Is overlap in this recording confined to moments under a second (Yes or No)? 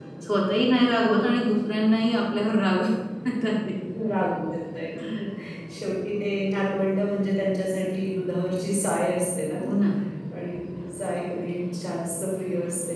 Yes